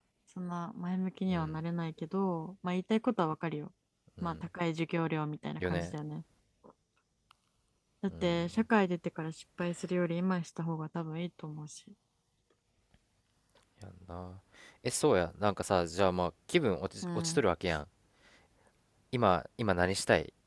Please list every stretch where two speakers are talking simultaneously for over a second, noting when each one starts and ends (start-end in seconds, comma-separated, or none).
none